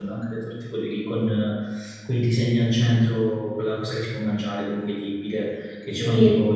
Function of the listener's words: listening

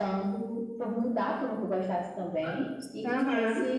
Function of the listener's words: listening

